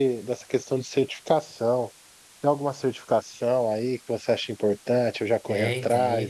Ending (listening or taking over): taking over